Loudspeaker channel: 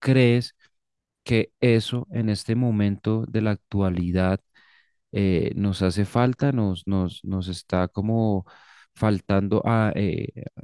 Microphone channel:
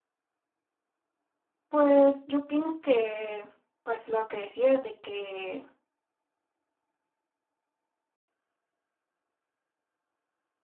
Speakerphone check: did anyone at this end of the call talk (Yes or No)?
Yes